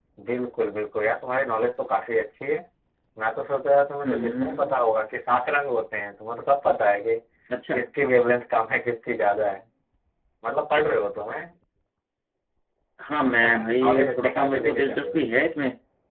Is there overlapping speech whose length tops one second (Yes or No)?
Yes